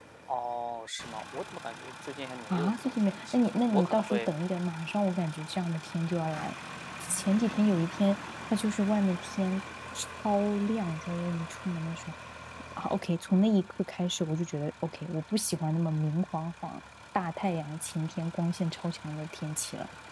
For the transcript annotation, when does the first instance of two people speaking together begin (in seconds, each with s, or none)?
2.5 s